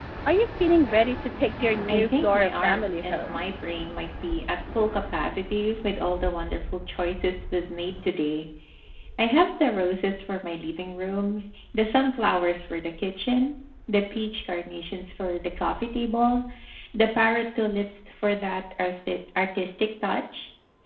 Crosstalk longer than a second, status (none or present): present